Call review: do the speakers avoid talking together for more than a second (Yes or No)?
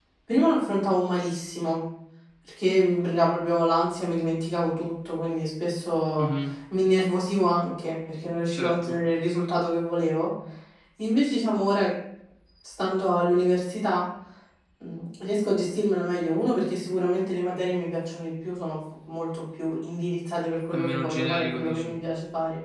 No